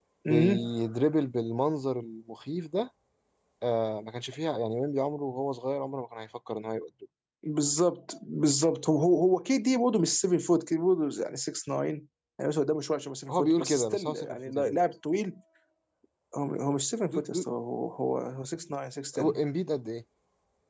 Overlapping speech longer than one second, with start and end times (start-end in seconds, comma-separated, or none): 13.3-14.8